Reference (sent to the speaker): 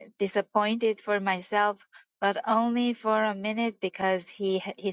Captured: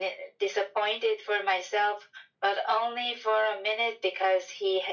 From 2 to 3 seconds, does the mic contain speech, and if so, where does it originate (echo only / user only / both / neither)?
echo only